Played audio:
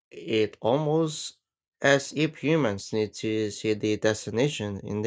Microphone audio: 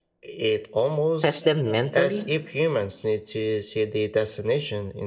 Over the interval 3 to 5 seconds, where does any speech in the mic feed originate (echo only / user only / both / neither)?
echo only